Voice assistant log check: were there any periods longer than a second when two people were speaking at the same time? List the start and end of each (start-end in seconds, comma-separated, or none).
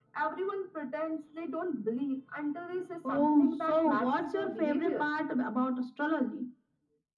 3.1-5.1